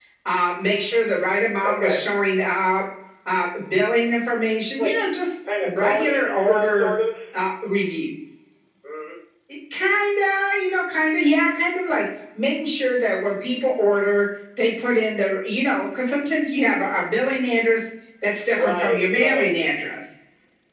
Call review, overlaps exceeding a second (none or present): present